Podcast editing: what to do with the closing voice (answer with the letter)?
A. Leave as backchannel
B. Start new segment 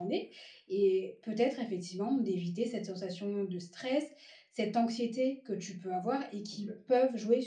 A